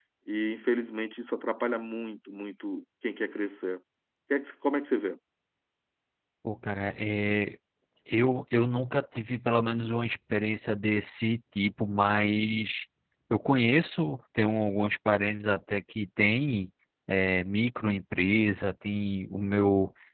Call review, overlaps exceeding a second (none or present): none